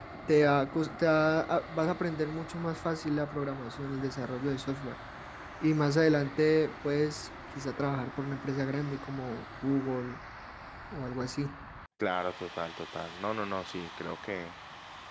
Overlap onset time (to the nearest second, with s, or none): none